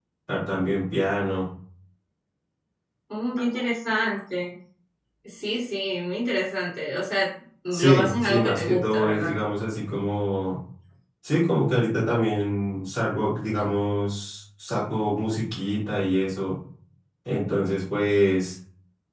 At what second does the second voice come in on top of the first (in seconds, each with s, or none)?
7.7 s